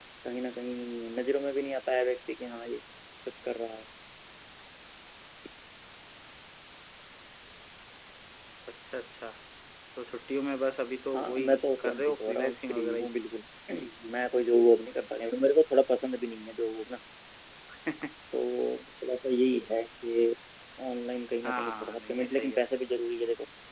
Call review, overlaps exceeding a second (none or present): present